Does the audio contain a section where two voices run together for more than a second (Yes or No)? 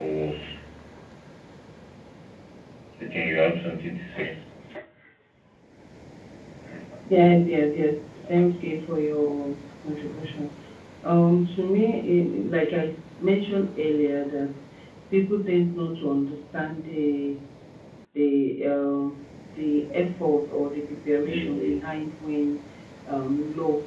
No